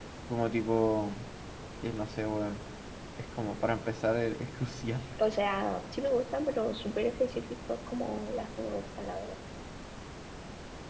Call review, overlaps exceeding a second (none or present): none